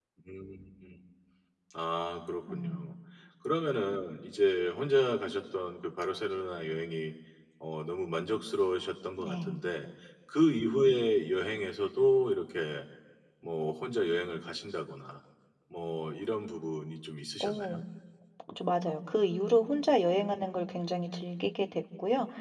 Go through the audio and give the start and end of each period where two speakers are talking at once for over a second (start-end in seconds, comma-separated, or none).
none